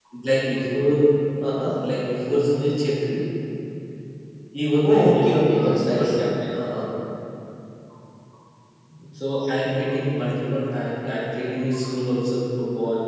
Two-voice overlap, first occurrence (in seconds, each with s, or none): 4.8 s